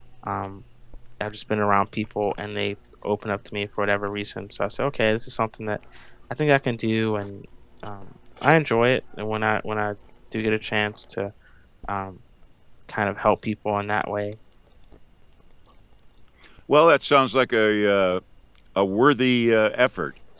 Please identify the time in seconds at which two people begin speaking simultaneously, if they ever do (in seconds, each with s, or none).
none